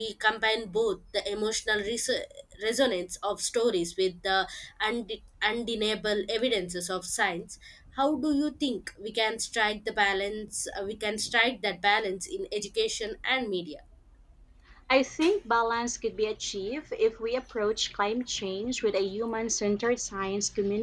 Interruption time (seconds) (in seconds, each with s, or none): none